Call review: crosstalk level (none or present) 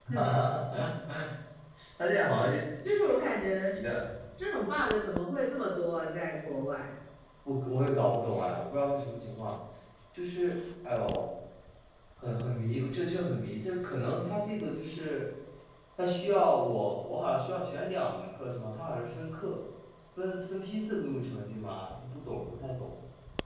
none